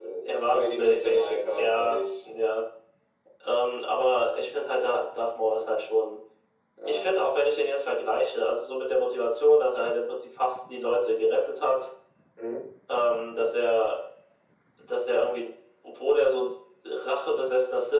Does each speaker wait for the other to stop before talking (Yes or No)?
No